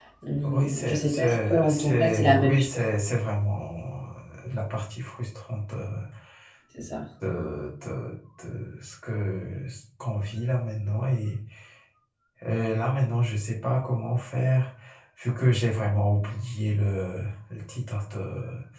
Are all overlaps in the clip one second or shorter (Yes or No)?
No